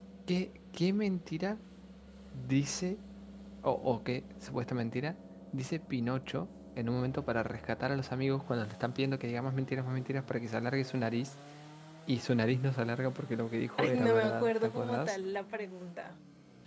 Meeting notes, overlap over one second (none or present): present